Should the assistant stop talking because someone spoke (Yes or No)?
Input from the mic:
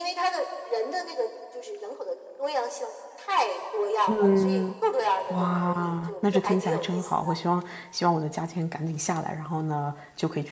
Yes